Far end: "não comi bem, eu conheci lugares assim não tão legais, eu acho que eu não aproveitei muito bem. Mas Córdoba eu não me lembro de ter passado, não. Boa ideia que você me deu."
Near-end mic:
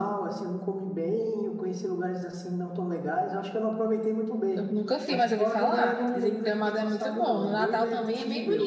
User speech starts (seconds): 4 s

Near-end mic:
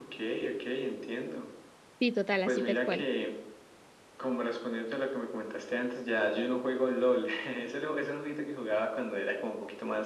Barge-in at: 2 s

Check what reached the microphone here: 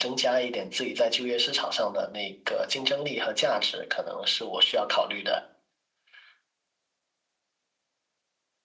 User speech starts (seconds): none

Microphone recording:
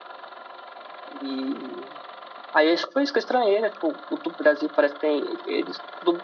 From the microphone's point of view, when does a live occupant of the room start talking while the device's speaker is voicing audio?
none

